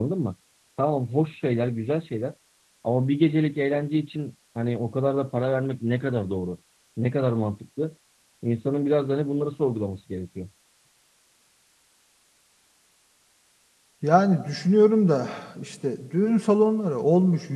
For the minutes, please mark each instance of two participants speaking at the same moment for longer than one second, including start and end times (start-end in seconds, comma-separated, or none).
none